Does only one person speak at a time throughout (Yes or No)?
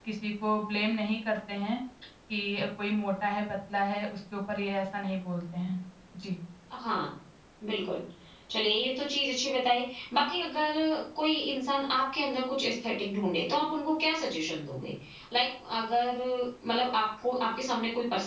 Yes